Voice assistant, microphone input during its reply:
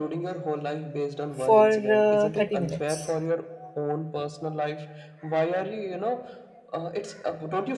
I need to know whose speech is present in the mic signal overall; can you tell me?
both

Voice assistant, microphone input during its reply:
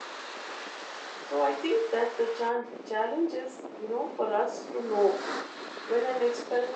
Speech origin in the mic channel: user only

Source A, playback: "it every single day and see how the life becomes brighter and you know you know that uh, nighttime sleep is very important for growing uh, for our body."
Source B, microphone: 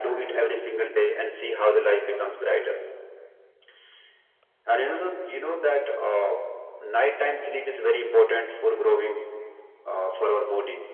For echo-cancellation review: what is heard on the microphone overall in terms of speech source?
echo only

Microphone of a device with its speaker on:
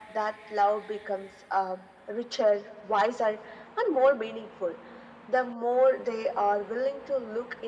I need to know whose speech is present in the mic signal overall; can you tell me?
echo only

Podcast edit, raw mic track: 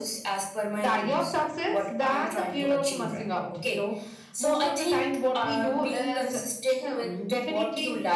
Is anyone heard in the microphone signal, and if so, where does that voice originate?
echo only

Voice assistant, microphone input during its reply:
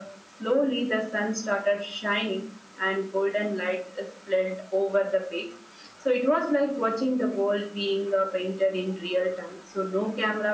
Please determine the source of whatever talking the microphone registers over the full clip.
echo only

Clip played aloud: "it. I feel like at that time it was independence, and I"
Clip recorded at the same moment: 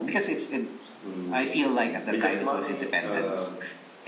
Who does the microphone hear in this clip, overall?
both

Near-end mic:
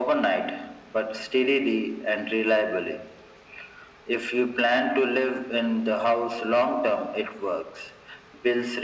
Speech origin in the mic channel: echo only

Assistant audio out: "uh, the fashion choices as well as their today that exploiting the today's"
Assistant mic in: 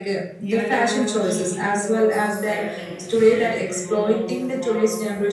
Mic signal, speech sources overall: both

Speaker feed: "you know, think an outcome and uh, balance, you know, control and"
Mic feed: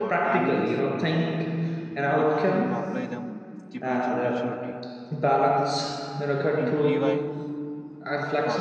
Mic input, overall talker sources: both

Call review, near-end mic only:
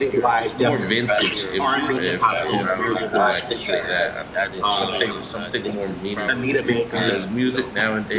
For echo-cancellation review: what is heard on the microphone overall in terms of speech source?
both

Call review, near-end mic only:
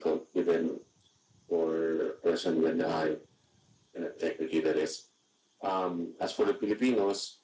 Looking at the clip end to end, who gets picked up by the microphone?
echo only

